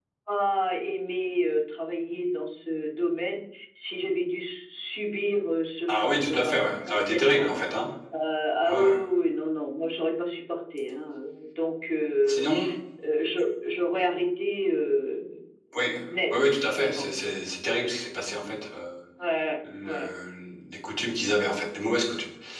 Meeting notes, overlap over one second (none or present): present